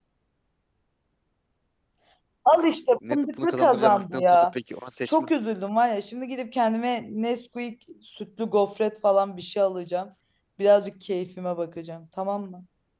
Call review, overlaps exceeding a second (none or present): present